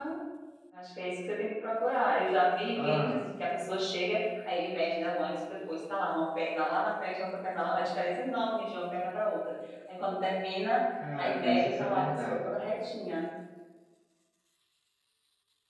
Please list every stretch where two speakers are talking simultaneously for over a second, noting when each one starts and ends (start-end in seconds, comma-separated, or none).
11.2-12.5